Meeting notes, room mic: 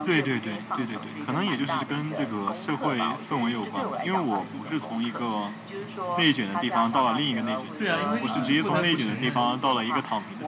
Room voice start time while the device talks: 7.8 s

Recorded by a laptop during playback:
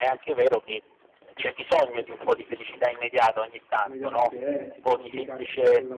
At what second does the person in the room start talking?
3.8 s

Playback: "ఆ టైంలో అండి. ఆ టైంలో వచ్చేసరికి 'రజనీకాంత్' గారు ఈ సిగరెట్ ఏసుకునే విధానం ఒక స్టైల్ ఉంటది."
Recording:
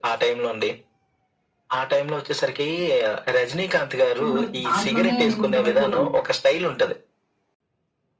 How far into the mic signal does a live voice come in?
4.2 s

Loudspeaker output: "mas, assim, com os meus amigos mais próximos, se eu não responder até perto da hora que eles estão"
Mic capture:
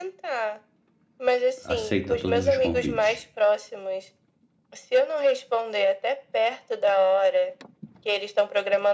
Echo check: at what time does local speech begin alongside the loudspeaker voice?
1.6 s

